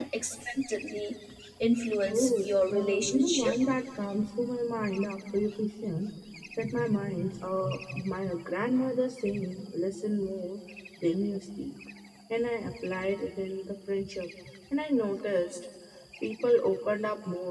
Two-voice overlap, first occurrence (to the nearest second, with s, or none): 2 s